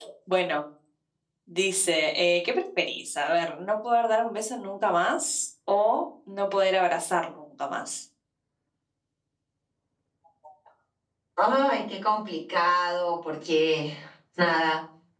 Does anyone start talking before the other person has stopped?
No

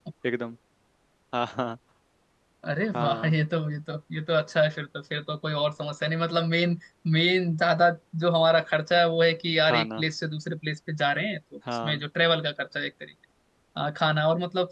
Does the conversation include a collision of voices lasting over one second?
No

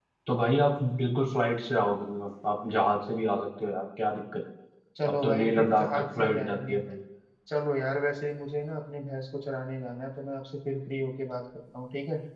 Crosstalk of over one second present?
Yes, from 5.1 s

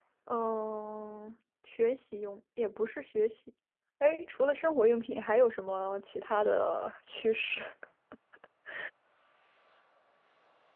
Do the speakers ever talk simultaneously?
No

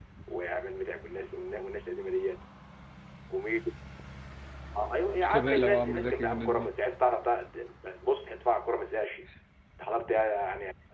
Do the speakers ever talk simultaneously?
Yes, from 5.2 s

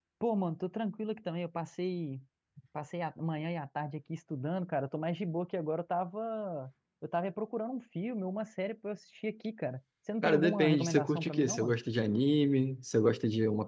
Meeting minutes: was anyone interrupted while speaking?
Yes, from 10.2 s

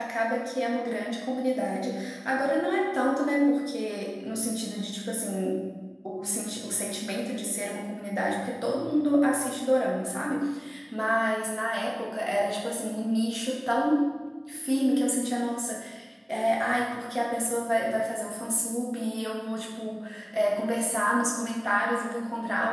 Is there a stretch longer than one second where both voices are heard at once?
No

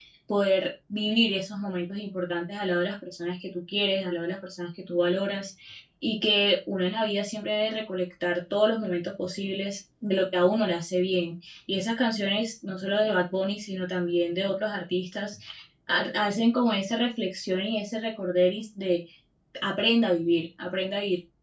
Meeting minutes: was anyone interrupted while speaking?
No

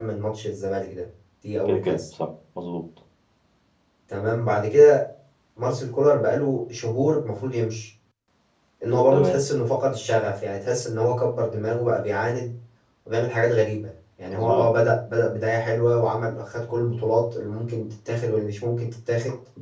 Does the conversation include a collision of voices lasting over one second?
No

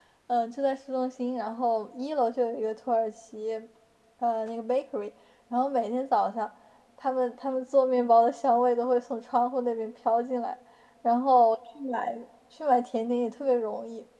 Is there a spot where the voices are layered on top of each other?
No

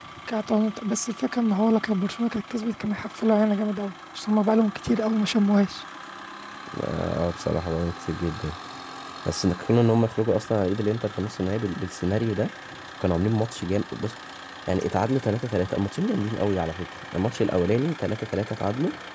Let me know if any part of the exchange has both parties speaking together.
No

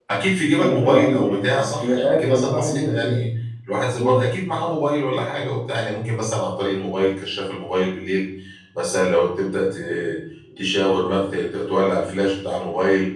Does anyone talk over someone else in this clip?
Yes, from 0.6 s

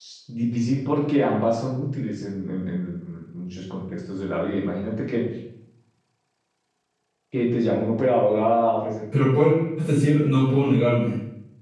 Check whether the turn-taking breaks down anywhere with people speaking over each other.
No

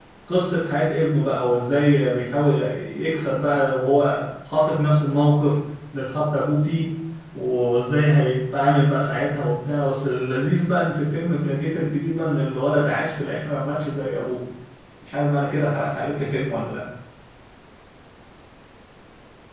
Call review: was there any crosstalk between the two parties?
No

